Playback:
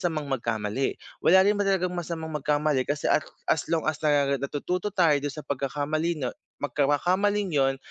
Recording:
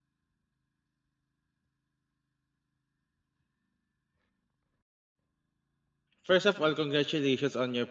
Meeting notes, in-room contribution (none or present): present